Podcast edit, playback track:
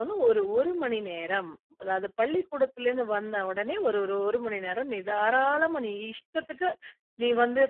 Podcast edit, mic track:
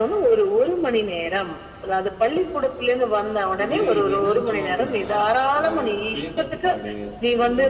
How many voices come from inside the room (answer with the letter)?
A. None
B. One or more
B